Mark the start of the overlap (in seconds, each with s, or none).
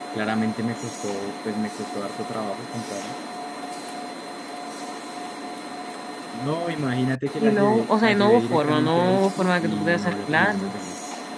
7.3 s